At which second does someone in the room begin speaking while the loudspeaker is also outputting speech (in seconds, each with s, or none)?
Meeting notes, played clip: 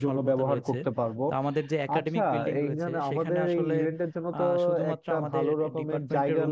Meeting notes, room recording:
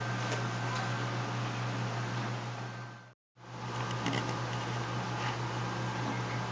none